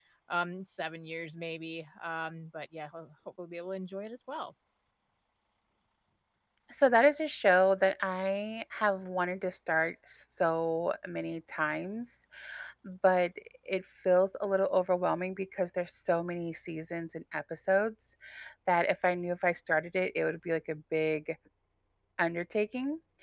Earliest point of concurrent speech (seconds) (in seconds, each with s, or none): none